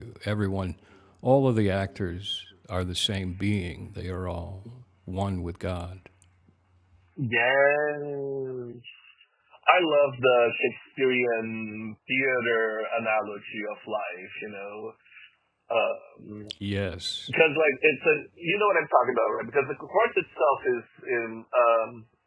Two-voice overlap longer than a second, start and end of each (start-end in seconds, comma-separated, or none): none